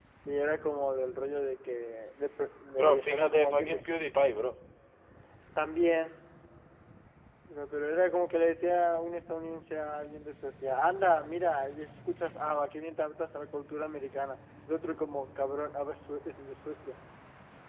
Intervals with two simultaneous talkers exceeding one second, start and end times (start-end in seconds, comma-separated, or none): 2.7-3.9